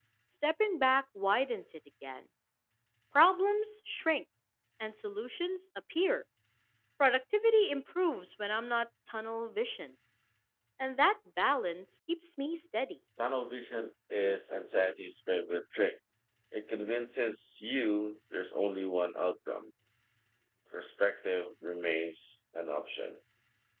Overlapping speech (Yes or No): No